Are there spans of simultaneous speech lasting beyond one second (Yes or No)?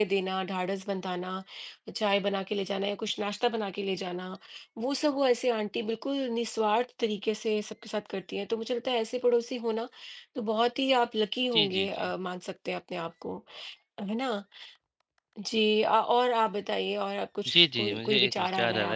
Yes